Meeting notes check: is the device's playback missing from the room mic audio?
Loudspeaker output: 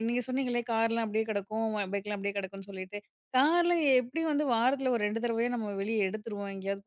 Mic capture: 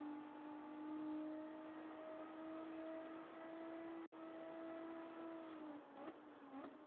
Yes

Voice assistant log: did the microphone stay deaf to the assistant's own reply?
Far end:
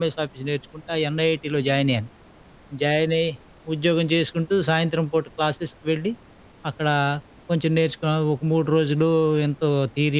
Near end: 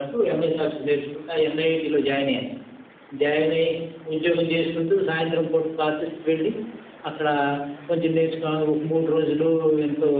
No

